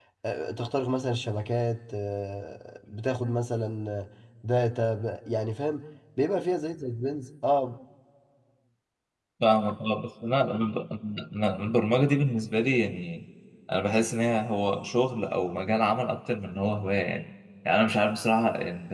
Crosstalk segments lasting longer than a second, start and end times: none

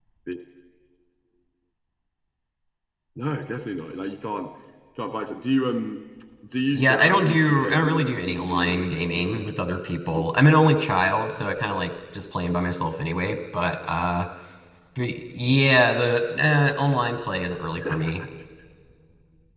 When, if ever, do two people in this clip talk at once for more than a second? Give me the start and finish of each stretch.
6.7-9.5

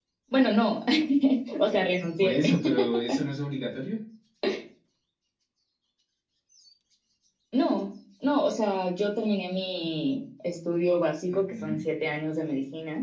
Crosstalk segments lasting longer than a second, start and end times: none

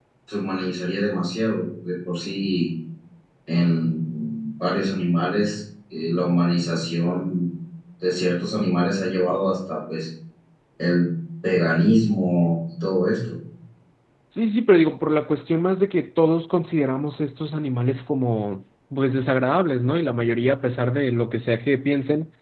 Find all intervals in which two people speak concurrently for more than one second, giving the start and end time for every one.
none

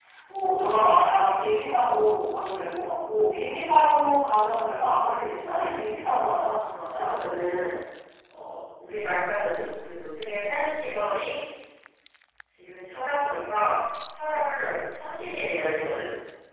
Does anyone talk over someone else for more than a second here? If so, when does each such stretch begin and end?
none

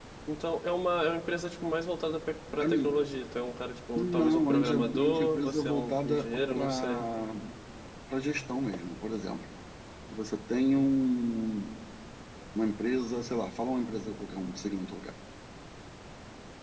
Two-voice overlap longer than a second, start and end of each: 4.0-7.0

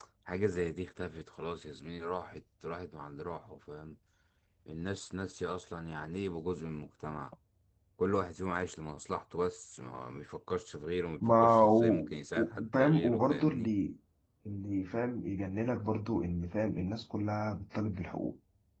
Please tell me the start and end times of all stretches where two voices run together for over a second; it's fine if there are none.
11.3-13.7

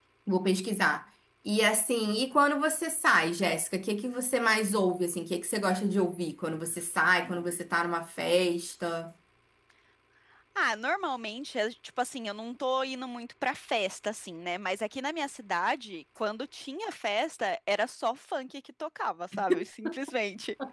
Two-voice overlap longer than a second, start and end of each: none

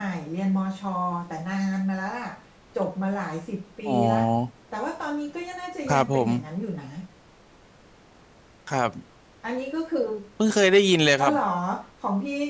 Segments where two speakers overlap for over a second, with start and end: none

